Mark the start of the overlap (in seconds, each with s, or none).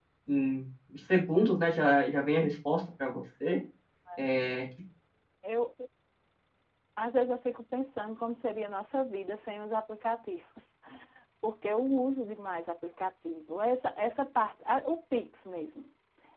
none